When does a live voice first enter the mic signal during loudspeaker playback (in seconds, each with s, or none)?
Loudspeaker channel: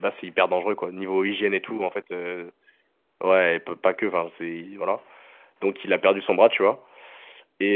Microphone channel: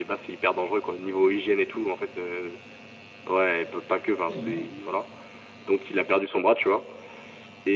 4.2 s